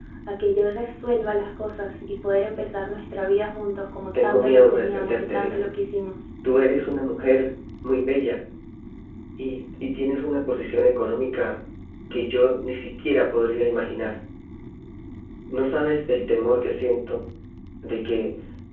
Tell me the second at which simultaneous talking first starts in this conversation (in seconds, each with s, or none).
4.1 s